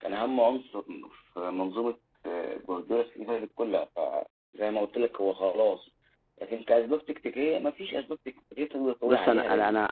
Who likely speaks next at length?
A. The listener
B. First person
A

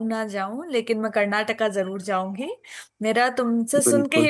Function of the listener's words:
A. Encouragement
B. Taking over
A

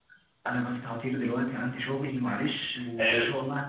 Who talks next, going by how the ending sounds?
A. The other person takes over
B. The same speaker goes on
B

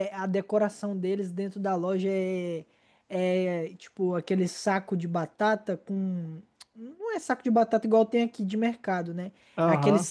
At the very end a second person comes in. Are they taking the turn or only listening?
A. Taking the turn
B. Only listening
B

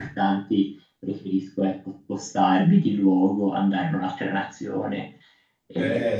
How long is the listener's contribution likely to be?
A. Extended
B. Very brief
A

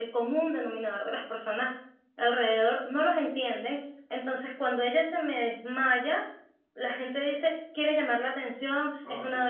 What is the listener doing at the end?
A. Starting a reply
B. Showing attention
B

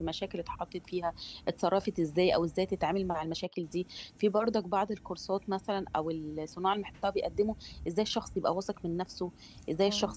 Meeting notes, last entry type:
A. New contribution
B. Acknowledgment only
B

